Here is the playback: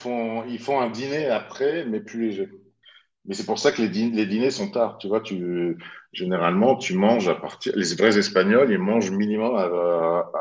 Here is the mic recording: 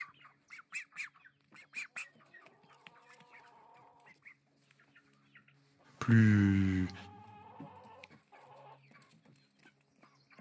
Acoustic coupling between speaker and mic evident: No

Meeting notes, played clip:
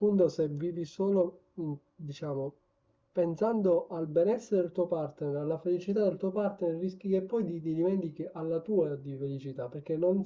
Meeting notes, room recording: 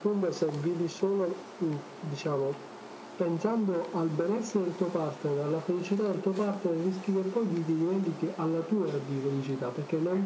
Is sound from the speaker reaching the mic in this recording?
Yes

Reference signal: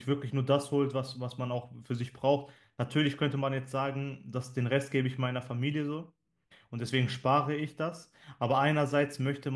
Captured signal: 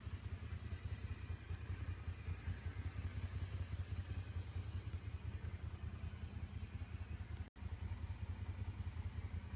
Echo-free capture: Yes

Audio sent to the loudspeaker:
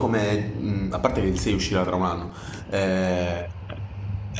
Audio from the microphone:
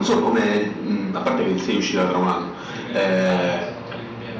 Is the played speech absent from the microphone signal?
No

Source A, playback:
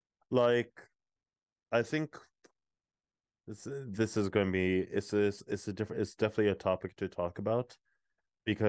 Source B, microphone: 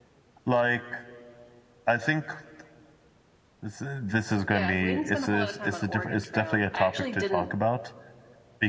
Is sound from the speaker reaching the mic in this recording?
Yes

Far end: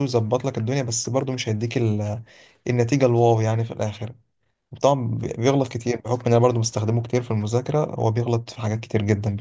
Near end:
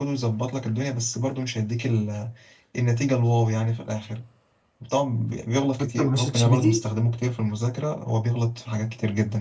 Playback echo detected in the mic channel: Yes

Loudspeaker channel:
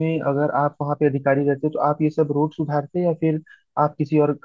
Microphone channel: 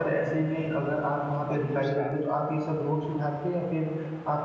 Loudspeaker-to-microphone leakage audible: Yes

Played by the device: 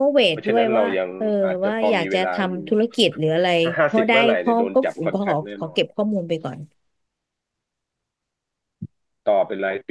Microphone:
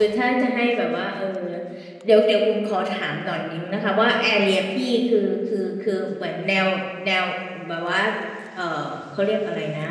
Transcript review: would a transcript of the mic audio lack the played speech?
Yes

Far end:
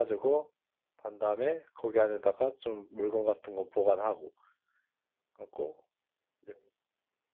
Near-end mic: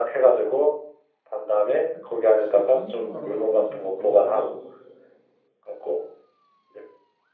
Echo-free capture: No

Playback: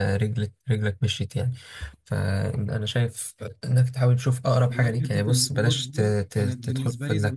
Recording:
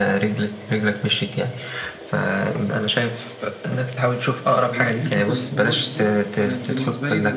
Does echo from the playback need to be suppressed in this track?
Yes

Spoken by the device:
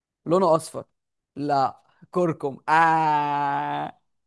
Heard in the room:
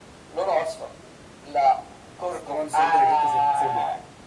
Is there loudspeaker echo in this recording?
Yes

